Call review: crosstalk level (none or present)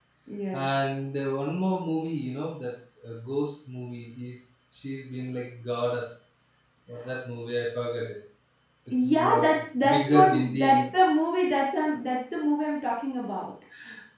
present